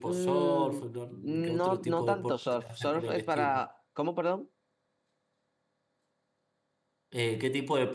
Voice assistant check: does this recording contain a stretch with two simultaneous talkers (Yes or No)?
Yes